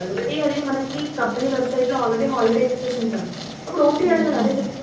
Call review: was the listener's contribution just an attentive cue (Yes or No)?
Yes